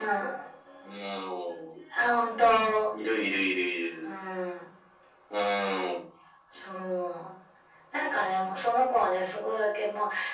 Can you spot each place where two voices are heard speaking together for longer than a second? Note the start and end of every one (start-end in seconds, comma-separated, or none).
none